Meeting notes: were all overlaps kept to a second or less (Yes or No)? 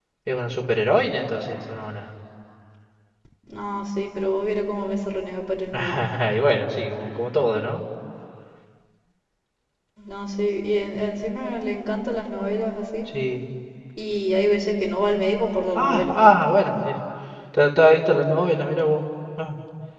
Yes